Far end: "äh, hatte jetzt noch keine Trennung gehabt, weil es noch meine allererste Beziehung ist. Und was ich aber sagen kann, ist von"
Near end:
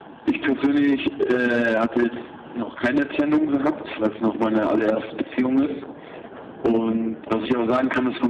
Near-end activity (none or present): none